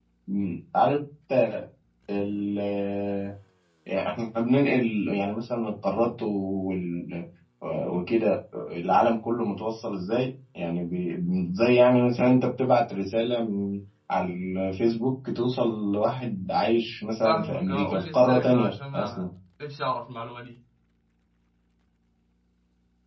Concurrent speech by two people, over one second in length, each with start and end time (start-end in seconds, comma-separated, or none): 17.2-19.2